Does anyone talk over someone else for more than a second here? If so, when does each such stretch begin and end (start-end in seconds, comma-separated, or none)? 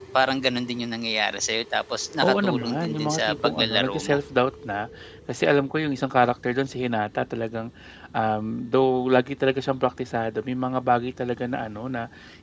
2.2-4.2